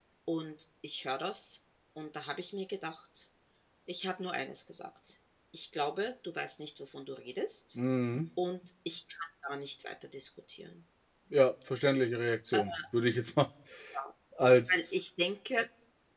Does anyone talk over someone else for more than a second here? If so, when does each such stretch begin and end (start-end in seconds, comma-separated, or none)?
none